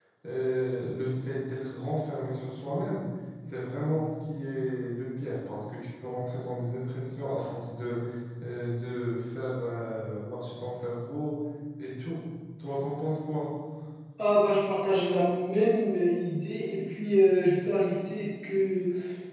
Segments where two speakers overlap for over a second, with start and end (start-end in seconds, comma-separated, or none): none